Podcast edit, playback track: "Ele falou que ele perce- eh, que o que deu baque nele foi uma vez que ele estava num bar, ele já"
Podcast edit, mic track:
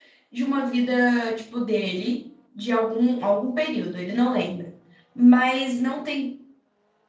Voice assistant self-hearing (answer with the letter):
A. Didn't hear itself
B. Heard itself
A